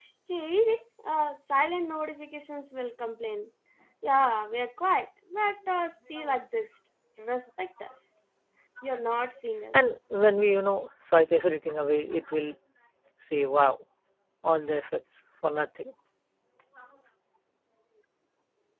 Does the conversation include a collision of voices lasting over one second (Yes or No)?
No